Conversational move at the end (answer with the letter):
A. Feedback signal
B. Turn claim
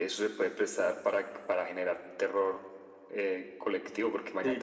A